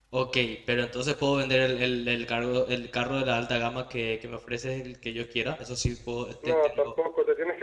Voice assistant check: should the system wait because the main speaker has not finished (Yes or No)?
No